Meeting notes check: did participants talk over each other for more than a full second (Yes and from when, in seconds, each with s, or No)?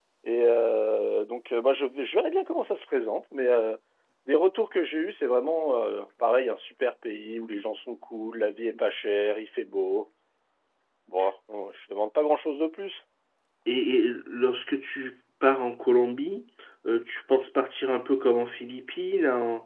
No